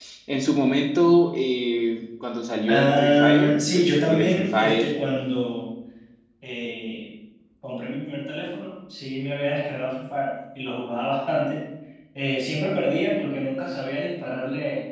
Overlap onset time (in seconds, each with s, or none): 2.7 s